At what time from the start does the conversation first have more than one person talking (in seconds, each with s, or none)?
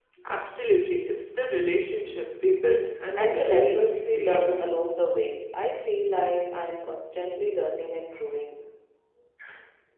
3.2 s